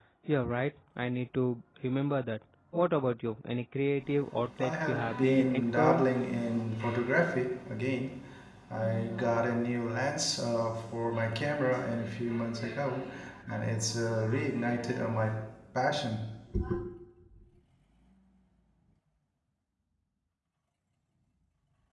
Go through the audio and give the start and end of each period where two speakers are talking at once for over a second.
4.6-6.0

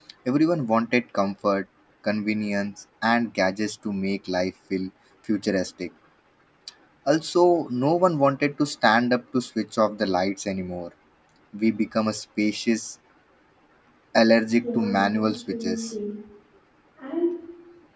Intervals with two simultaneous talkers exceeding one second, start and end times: 14.6-15.9

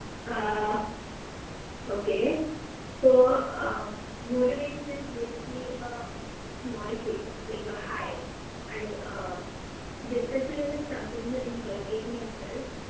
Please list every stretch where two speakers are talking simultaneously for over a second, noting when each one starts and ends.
none

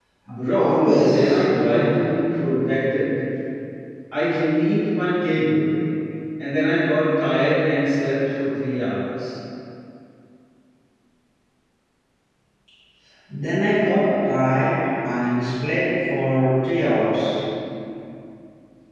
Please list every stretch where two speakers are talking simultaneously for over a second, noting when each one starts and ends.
0.5-1.9

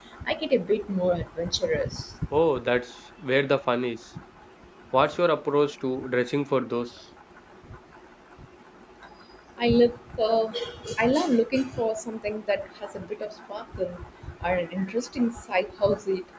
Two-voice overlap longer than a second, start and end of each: none

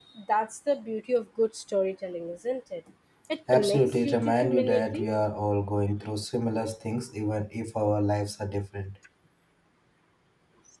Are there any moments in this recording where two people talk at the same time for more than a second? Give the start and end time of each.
3.5-5.1

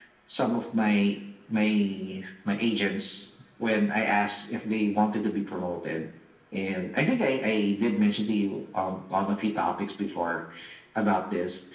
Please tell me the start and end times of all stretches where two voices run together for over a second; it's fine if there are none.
none

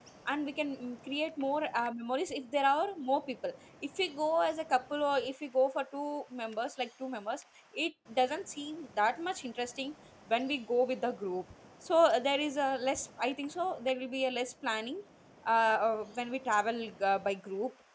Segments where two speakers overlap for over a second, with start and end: none

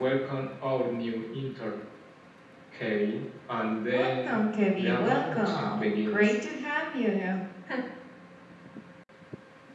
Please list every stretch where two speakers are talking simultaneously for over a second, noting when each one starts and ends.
4.8-6.3

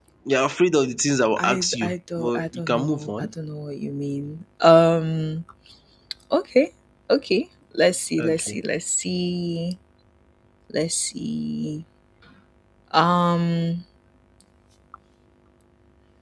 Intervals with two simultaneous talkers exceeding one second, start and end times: 1.4-3.3

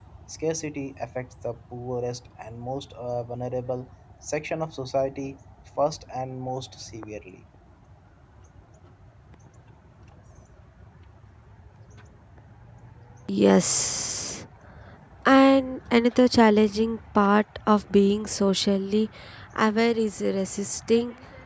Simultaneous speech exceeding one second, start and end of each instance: none

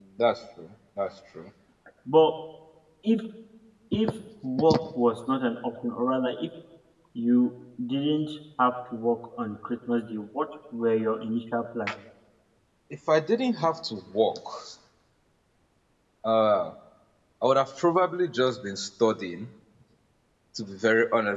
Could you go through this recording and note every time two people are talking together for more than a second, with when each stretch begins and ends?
none

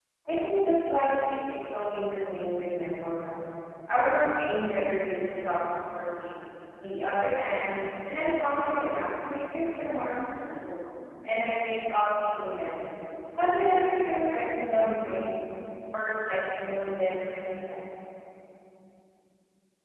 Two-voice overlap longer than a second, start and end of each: none

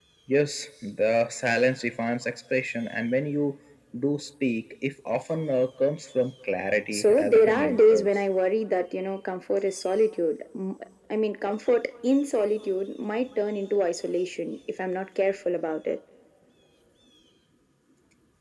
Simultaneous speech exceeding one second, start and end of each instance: 6.9-8.2

